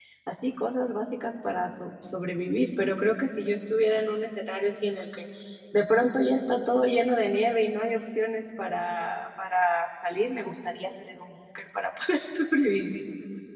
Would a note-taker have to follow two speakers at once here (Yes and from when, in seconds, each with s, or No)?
No